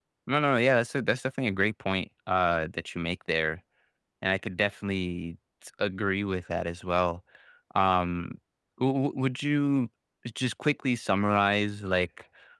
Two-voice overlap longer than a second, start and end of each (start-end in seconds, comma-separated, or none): none